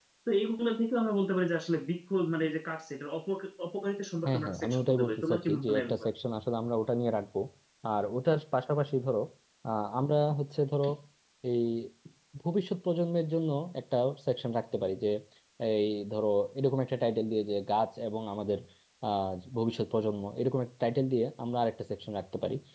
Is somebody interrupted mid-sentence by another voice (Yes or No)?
Yes